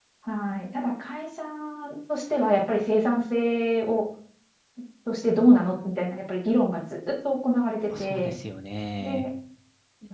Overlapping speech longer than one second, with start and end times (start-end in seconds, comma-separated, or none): none